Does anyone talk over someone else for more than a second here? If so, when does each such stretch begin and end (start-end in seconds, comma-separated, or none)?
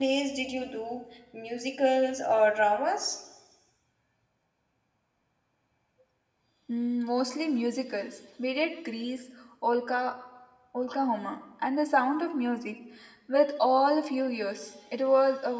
none